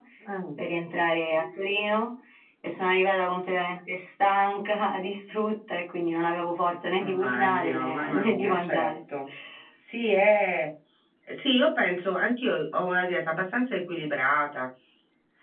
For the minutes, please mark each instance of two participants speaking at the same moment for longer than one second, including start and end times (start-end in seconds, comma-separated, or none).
7.0-8.9